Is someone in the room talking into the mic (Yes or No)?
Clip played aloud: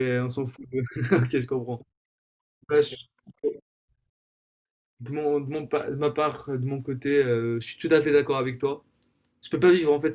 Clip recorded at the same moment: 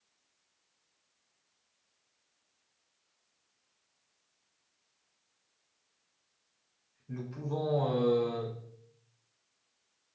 Yes